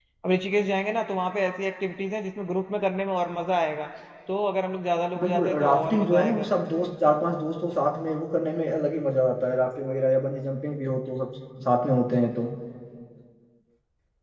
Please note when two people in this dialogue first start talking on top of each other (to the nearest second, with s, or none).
5 s